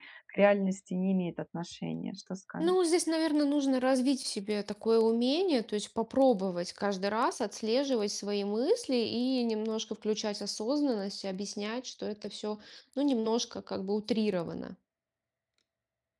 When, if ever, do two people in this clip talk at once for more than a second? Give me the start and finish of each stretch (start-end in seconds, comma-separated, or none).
none